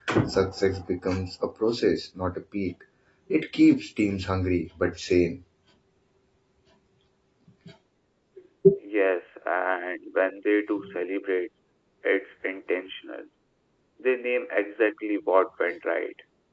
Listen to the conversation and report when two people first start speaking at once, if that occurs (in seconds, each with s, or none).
none